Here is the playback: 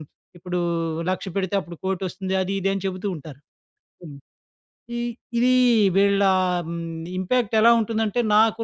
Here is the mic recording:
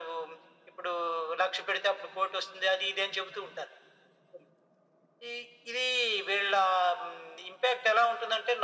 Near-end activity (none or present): none